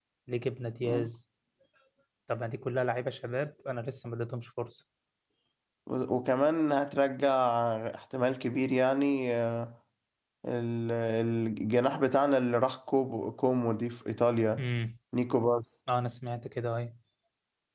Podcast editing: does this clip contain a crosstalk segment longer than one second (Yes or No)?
No